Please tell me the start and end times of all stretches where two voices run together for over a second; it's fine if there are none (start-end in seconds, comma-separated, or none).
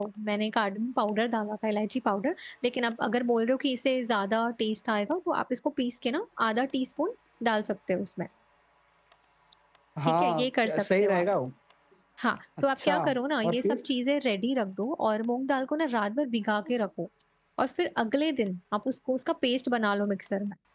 10.0-11.2